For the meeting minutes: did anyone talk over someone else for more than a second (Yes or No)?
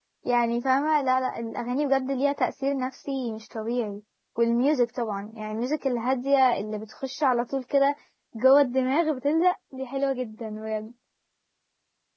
No